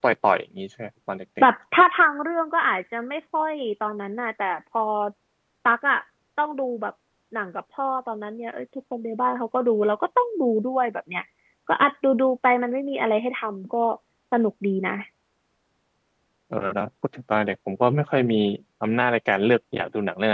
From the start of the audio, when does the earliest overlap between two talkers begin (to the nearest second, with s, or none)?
none